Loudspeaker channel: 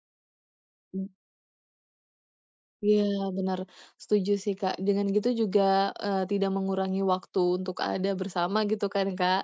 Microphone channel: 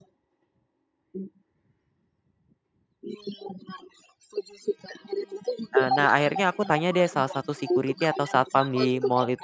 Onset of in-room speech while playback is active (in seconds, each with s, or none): 5.7 s